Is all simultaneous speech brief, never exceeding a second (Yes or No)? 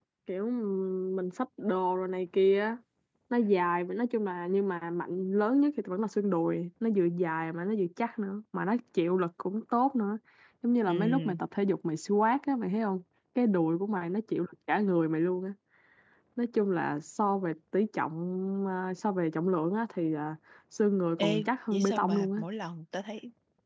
No